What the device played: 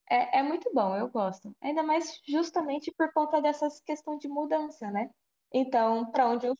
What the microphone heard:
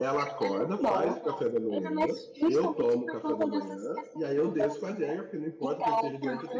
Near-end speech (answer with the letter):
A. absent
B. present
B